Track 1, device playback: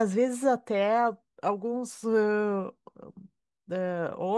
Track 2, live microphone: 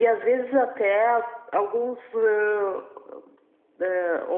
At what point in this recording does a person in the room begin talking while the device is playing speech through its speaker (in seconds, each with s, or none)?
none